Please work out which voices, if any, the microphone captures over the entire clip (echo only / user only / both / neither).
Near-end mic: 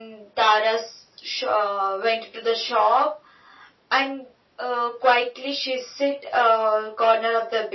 echo only